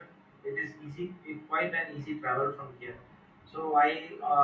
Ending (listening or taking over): listening